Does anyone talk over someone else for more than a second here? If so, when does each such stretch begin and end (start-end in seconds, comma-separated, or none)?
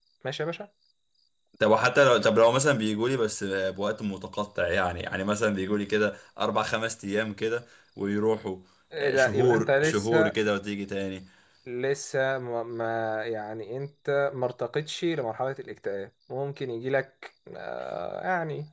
9.0-10.3